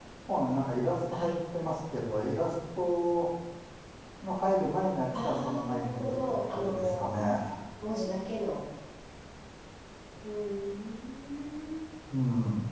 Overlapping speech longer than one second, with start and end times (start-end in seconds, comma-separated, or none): 5.2-7.0